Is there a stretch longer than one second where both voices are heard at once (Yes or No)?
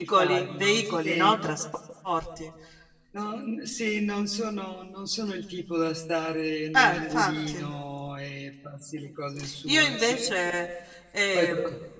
Yes